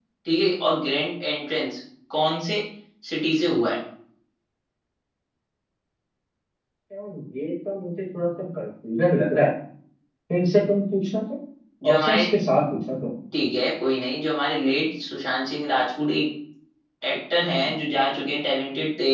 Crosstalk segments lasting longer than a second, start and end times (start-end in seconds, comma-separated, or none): none